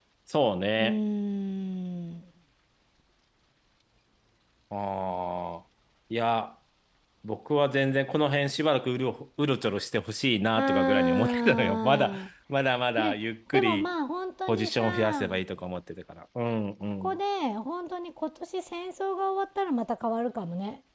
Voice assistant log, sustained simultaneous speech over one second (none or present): present